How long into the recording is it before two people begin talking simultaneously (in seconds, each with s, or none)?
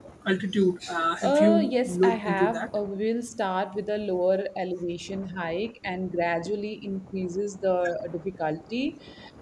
1.2 s